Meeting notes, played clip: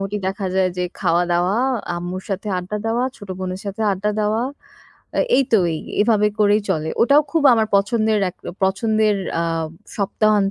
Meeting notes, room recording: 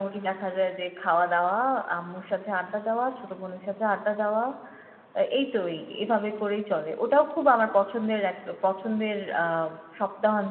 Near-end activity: none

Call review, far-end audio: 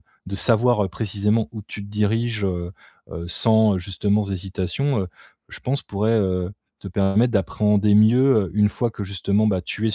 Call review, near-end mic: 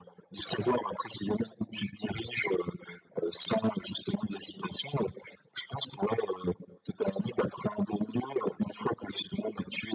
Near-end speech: none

